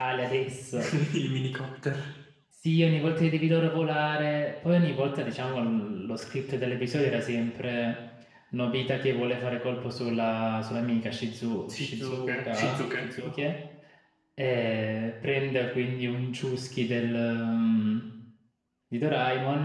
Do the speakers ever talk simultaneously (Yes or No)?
Yes